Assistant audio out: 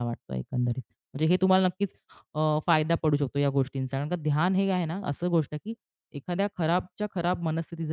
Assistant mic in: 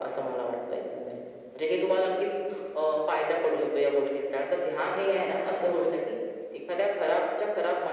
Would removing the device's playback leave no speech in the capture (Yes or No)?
Yes